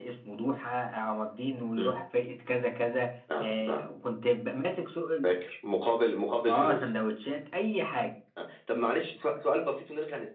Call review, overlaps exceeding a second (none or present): none